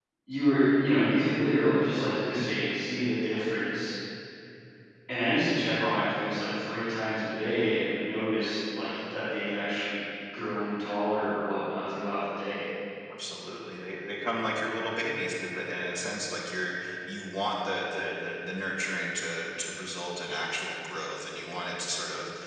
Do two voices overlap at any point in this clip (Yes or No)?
No